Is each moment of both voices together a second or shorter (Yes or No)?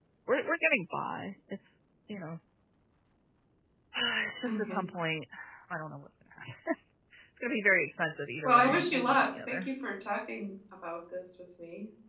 No